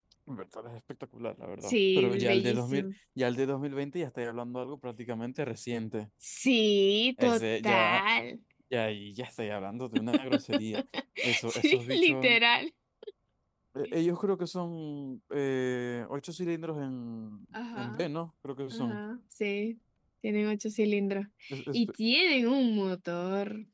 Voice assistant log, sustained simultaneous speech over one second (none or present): present